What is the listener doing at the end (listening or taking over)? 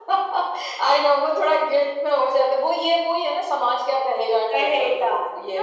taking over